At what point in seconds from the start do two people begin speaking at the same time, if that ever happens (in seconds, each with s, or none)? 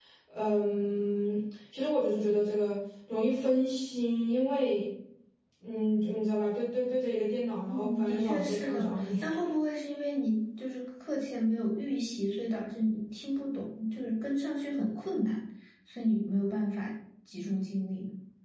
7.7 s